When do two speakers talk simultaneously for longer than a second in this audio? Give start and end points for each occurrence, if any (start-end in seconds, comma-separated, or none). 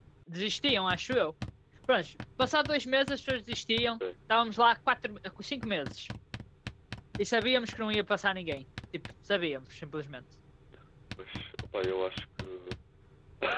none